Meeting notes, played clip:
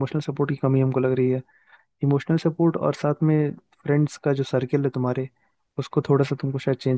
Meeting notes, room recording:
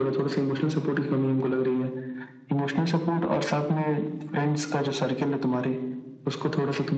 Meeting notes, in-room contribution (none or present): none